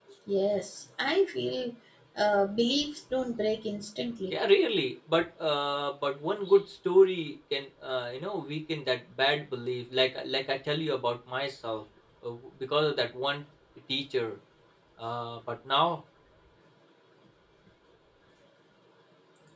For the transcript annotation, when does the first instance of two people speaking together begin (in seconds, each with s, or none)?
none